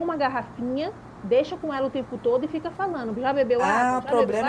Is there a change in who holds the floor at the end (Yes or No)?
Yes